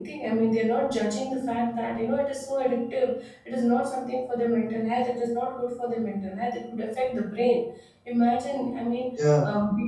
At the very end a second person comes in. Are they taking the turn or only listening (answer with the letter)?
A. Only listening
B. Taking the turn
A